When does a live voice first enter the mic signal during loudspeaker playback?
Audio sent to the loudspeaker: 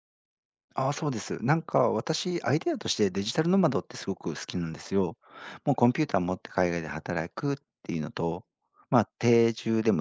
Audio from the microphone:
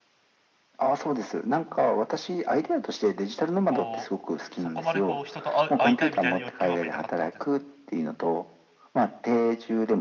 4 s

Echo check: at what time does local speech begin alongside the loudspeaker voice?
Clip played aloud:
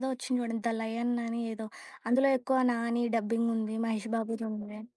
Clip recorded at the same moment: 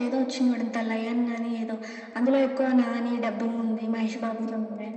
none

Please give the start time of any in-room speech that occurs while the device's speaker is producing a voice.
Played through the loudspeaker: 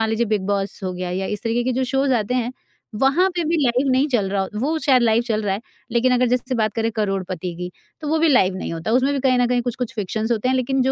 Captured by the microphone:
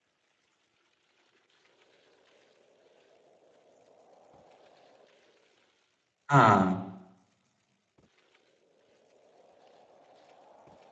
6 s

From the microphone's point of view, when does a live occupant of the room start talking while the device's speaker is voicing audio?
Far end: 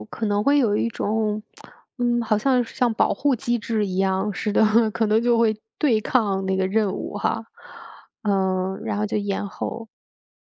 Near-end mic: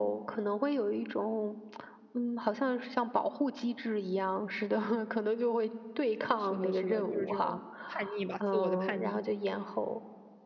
6 s

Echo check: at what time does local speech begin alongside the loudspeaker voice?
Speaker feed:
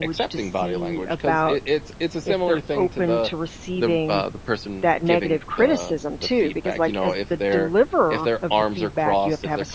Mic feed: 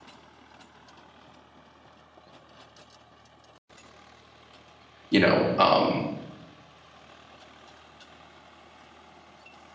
5 s

